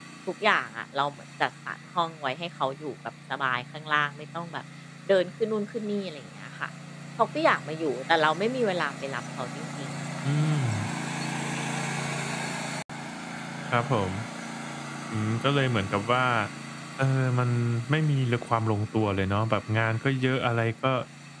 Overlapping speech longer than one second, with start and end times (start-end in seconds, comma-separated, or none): none